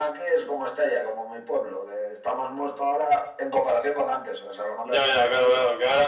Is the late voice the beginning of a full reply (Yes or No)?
Yes